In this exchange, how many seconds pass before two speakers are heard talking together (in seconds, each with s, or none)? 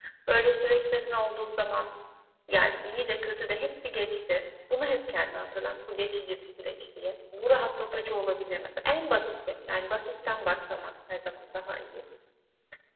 none